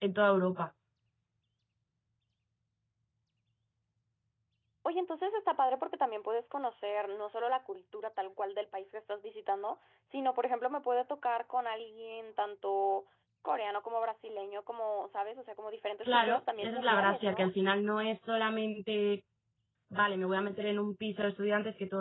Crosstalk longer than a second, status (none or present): present